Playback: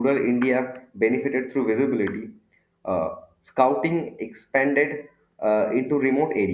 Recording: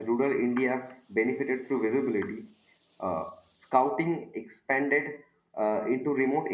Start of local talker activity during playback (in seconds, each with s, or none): none